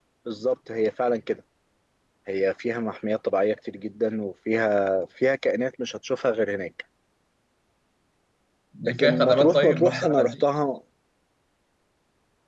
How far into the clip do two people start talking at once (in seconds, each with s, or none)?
9.0 s